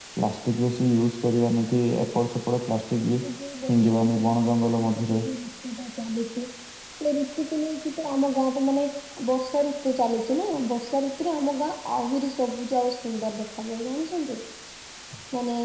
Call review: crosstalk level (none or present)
present